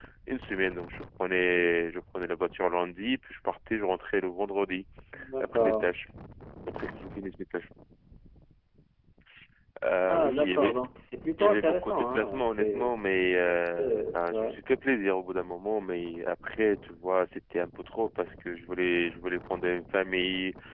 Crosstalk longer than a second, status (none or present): present